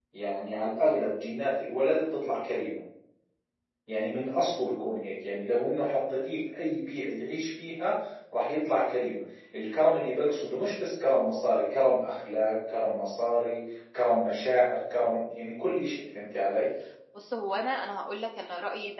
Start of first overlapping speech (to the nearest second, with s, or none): none